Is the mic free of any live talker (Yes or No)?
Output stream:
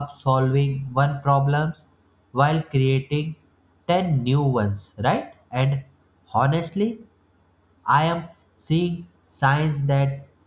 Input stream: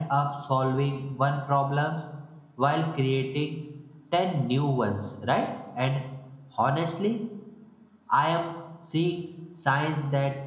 Yes